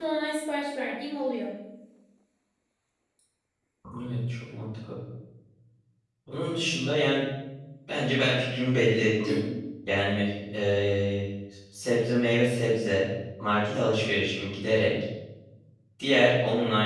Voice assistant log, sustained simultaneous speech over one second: none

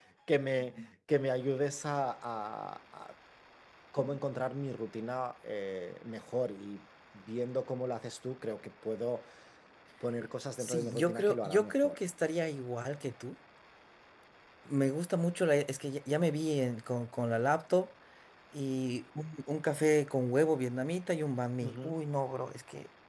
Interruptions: present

